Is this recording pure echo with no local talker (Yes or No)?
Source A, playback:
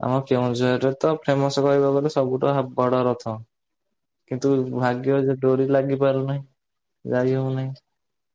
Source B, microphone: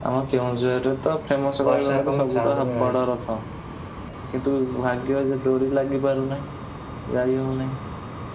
No